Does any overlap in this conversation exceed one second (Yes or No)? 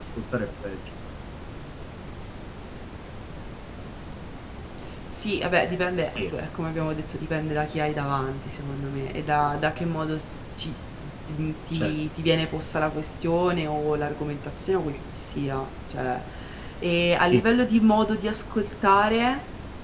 No